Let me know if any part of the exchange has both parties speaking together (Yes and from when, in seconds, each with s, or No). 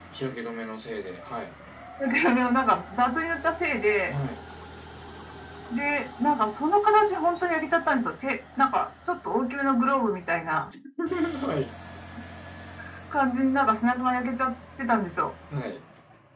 No